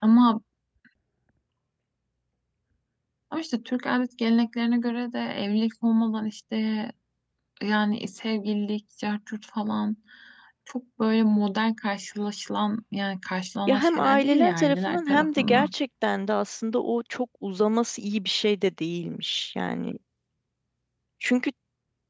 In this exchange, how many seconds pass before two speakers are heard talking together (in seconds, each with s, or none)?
13.7 s